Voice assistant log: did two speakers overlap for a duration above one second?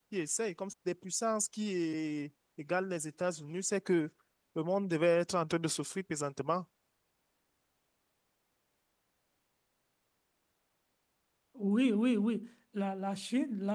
No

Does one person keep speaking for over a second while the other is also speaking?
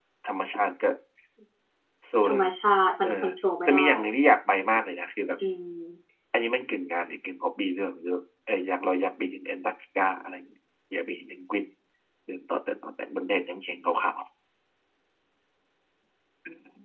No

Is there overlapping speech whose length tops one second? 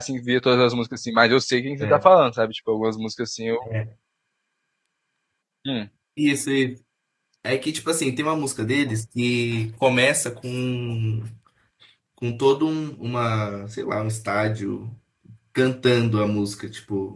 No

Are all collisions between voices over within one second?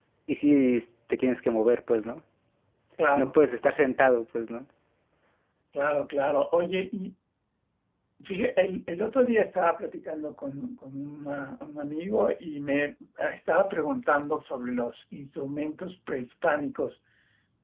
Yes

